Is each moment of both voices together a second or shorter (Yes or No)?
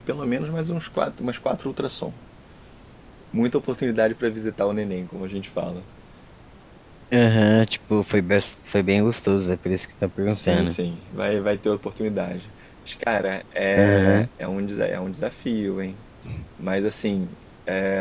Yes